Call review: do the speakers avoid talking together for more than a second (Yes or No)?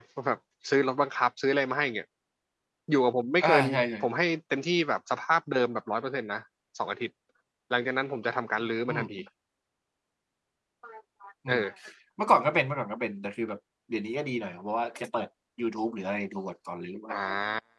Yes